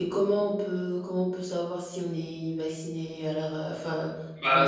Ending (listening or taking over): taking over